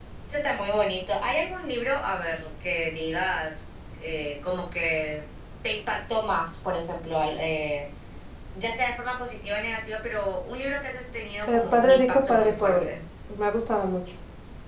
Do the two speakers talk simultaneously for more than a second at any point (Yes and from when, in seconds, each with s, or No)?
Yes, from 11.5 s